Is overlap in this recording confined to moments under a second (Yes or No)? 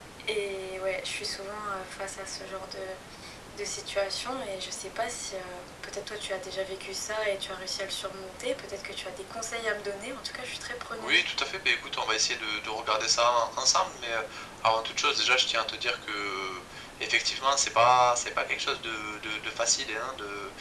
Yes